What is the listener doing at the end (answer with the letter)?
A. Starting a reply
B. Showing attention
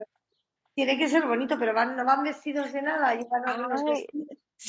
A